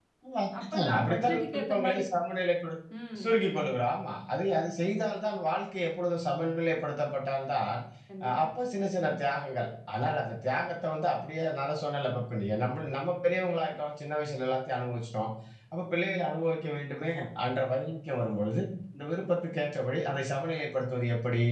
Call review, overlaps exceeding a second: present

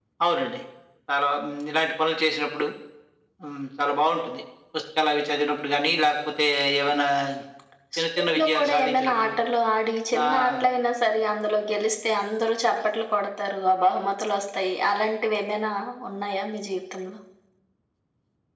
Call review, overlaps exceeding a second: present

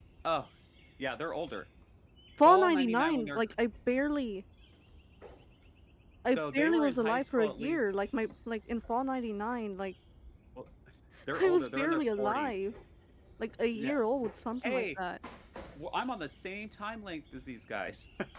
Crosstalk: present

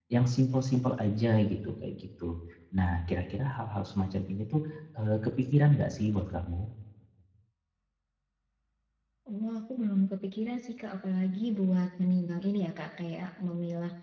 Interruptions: none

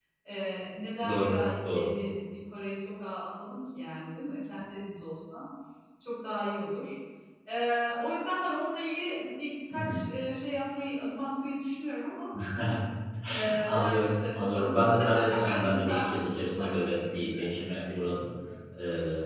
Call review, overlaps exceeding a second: present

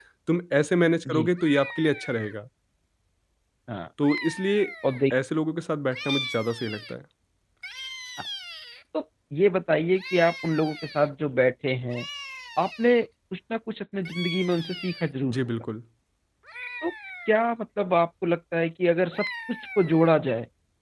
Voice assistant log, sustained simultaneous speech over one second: none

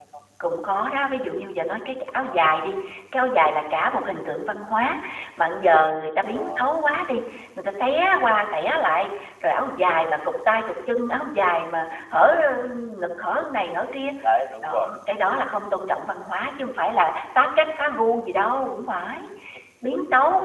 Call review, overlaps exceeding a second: none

